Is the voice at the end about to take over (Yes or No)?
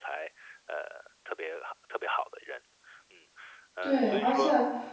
Yes